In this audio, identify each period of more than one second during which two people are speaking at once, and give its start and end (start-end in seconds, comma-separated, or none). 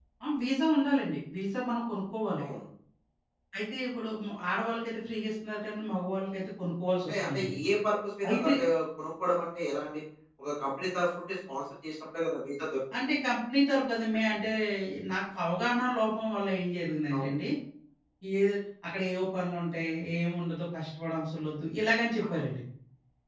none